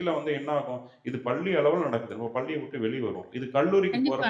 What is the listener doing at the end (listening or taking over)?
taking over